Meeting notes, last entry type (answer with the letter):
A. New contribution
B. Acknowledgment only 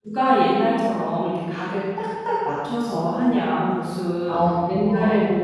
B